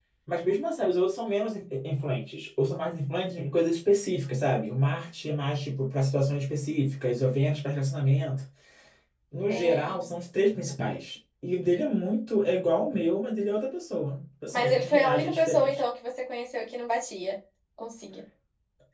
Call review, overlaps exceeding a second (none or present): present